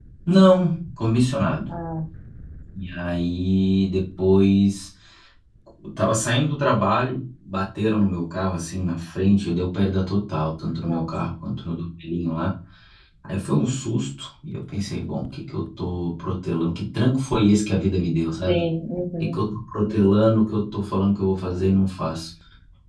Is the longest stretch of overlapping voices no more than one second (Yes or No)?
Yes